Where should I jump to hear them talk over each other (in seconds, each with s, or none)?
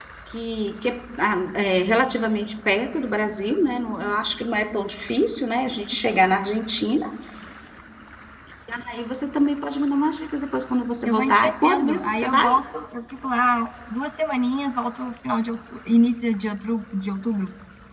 11.0 s